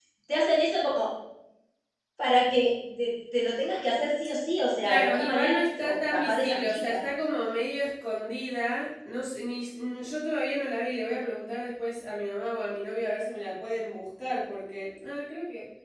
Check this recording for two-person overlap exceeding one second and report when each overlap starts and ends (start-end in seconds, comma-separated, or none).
4.8-7.0